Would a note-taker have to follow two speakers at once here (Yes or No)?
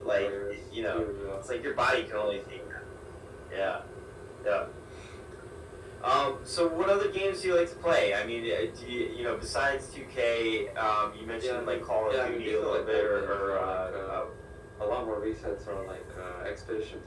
Yes